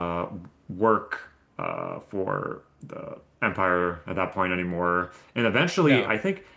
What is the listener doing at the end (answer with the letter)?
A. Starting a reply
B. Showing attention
B